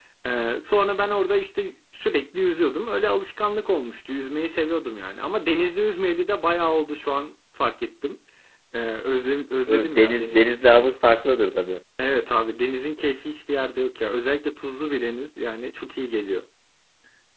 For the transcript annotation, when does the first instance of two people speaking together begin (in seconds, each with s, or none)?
9.7 s